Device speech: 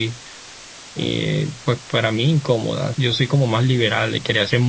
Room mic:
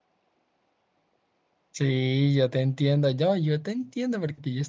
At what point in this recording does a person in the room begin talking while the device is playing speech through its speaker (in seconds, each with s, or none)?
1.7 s